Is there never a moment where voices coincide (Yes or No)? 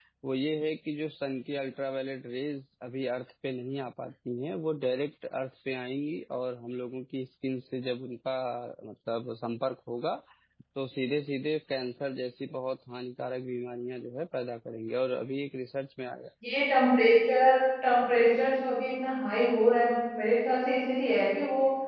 Yes